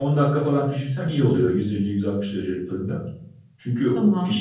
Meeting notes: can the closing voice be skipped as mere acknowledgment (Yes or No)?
Yes